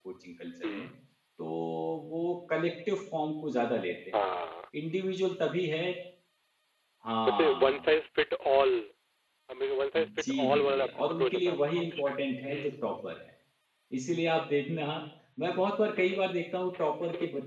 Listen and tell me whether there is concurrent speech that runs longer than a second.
Yes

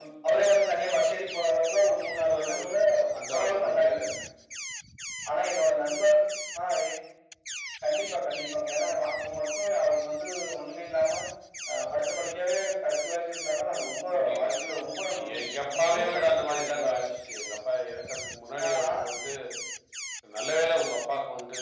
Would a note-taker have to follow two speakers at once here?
Yes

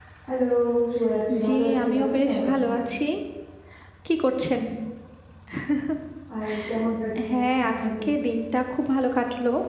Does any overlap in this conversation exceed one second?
Yes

